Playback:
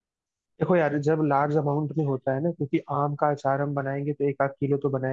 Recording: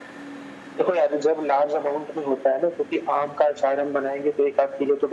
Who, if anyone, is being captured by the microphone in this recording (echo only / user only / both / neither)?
echo only